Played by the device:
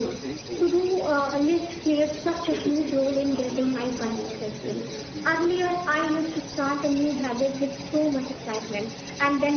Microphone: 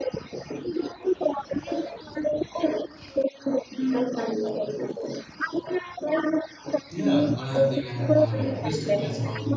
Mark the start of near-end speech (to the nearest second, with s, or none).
7 s